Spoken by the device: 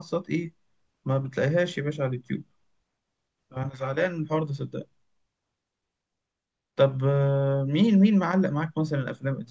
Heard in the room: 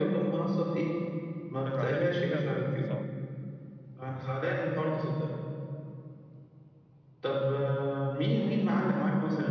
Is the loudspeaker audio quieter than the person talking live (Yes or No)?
No